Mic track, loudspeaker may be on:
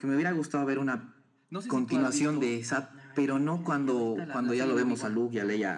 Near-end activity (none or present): present